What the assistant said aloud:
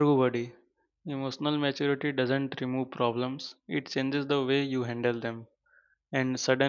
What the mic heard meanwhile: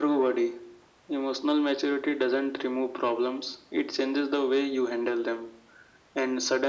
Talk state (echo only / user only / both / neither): echo only